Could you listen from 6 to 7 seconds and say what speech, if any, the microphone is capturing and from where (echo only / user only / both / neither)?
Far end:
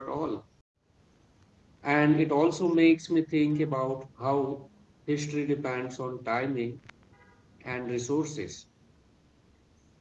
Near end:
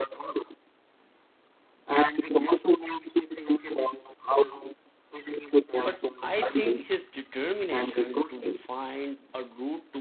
both